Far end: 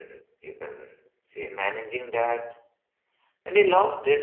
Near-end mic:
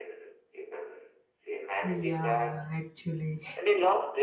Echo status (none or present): present